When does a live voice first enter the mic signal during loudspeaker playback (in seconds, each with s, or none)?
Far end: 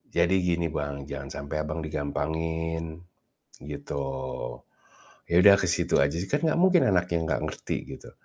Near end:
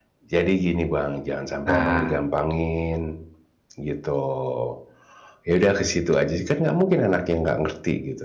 1.7 s